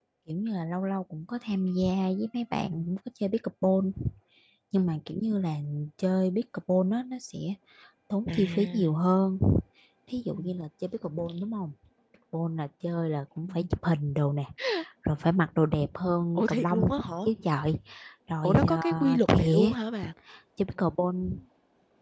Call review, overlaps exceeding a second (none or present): present